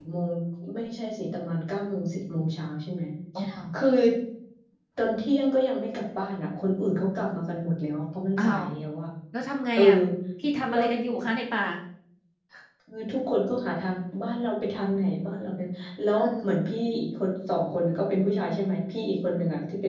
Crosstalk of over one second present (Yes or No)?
No